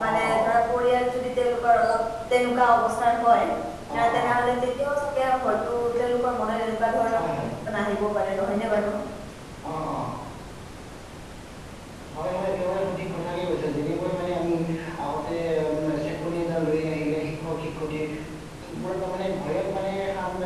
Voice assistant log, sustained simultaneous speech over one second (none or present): none